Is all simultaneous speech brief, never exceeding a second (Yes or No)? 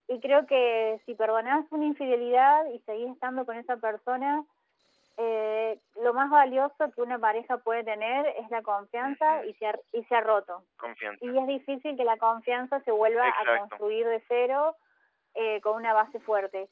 Yes